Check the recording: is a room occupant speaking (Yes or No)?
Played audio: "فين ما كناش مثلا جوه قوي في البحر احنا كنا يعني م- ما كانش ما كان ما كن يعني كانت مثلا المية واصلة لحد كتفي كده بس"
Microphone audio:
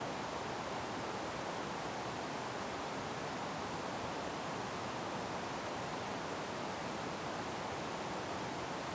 No